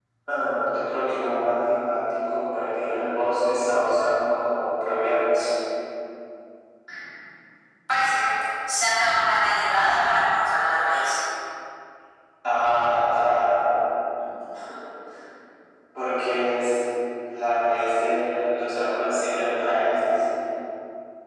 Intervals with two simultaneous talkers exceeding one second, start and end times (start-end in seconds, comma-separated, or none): none